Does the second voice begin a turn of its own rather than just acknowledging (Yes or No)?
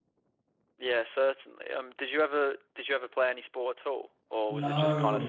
Yes